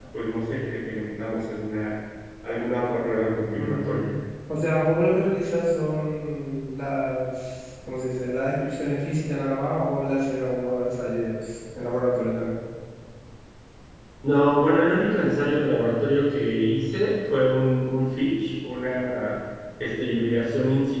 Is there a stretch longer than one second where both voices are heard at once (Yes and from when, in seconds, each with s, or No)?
No